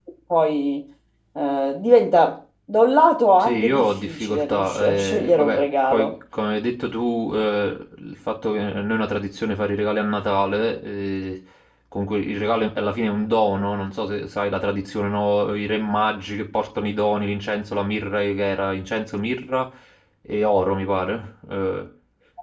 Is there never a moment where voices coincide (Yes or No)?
No